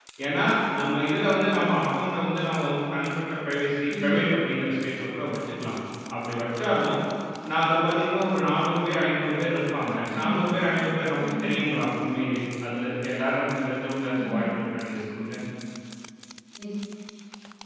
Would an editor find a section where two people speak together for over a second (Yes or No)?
No